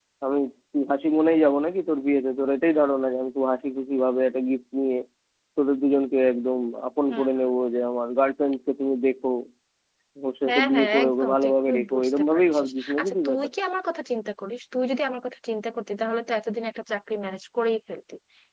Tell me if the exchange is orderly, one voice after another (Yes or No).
No